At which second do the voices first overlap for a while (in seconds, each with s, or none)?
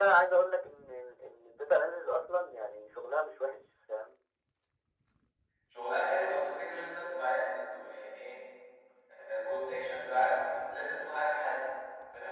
none